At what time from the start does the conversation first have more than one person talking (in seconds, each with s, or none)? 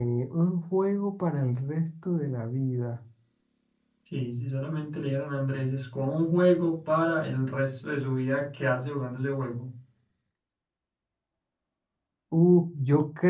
none